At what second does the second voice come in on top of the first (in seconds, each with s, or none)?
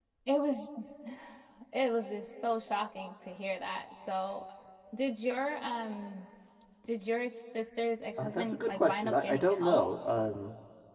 8.2 s